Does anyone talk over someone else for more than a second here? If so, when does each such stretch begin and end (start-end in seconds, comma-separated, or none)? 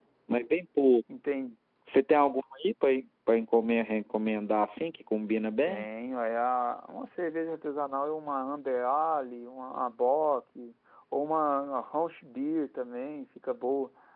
none